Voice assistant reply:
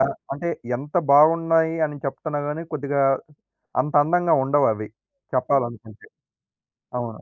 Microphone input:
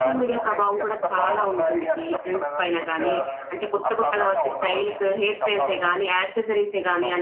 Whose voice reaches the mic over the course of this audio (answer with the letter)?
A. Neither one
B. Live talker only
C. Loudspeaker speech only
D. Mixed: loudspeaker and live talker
D